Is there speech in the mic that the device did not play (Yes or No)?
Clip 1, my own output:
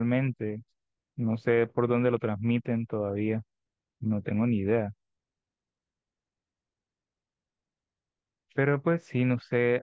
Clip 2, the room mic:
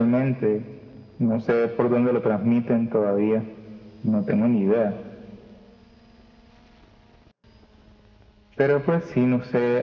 No